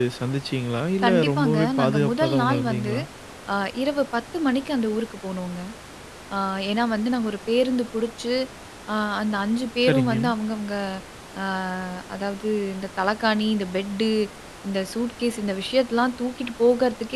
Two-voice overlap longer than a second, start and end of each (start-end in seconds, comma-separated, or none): 1.0-2.9